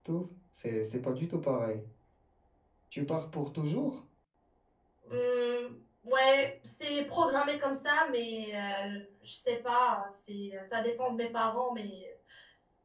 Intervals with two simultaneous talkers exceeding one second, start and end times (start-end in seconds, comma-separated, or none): none